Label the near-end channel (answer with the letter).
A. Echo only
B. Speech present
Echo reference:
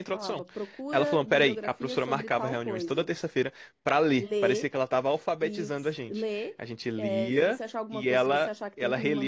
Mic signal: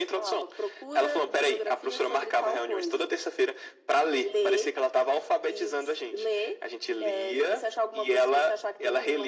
A